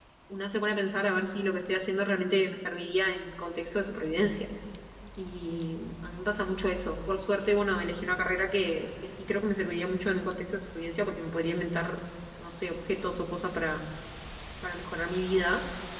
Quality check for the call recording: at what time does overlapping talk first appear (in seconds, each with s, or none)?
none